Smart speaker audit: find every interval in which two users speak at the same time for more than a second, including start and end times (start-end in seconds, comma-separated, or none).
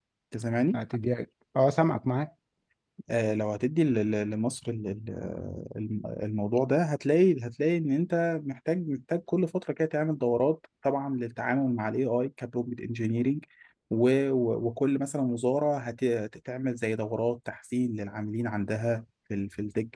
none